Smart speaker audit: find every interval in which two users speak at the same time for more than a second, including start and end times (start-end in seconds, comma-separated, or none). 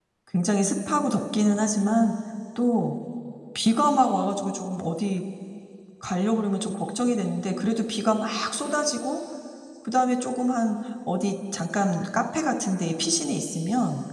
none